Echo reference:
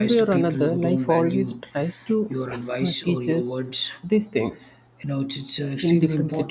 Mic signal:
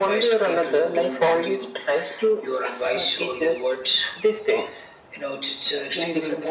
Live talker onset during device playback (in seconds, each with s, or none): none